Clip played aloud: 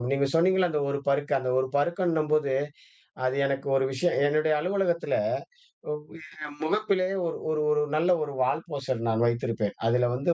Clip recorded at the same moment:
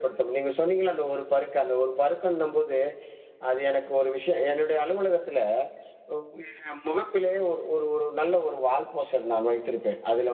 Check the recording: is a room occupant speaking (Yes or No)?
No